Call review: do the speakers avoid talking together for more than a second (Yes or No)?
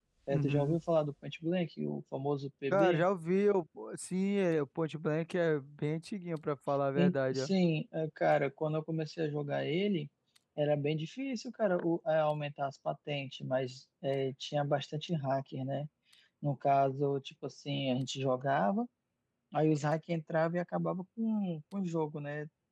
Yes